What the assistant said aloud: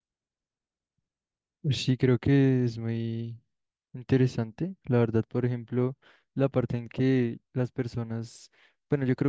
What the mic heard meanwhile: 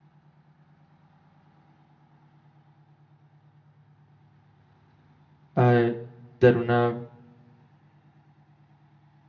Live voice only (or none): a dar una